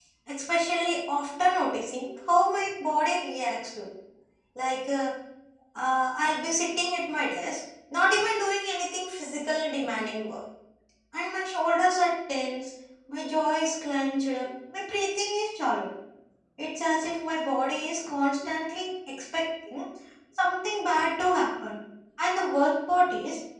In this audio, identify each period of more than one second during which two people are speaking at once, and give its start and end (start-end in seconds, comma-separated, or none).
none